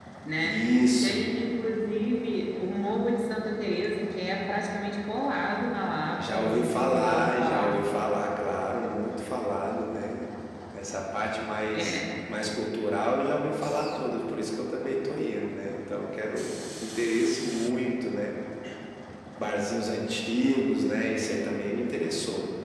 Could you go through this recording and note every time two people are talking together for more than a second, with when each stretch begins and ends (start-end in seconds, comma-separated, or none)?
6.2-7.9